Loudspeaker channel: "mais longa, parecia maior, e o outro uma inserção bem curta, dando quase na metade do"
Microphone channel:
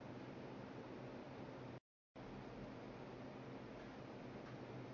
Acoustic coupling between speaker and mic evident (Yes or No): No